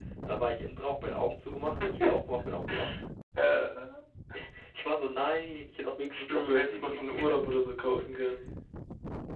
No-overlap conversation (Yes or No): No